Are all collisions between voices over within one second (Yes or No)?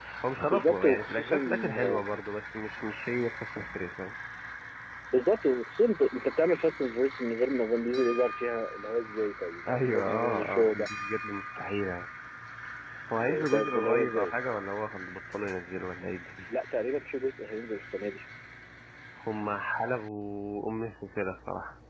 No